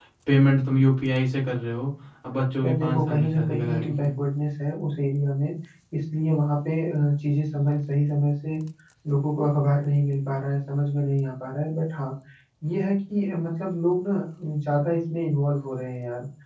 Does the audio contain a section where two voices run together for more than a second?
Yes, from 2.6 s

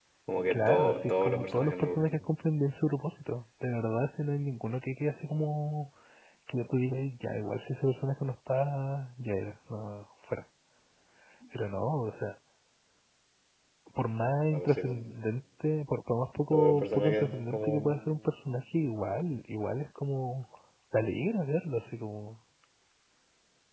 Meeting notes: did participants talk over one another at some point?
Yes, from 0.5 s

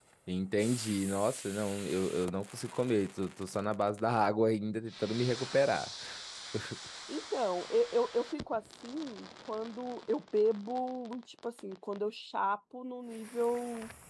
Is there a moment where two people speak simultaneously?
No

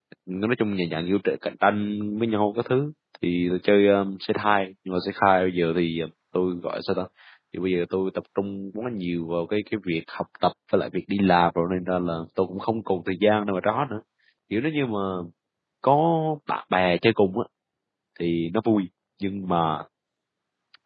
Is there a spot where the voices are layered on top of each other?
No

